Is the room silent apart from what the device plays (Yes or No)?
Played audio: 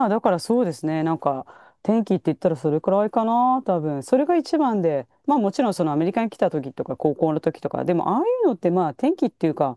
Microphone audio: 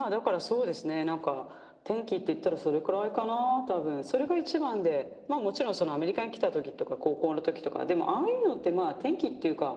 Yes